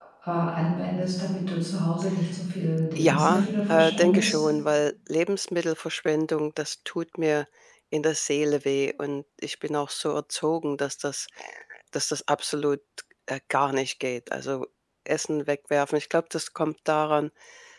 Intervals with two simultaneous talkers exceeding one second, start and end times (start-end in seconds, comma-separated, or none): 3.0-4.4